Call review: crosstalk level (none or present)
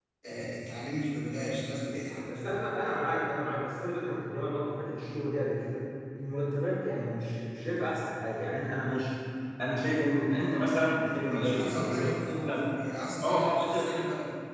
present